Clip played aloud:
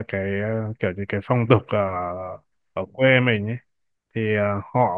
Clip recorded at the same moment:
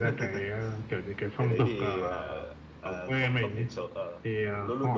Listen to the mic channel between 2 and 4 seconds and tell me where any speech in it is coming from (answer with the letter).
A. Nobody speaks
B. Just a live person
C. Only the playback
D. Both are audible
D